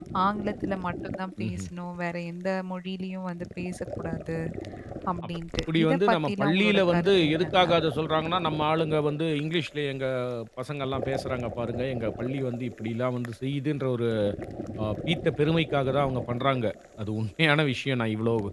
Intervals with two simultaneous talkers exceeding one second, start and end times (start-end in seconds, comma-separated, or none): 5.8-7.6